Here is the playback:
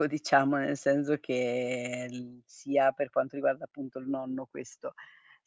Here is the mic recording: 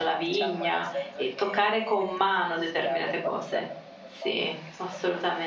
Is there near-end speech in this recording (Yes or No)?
Yes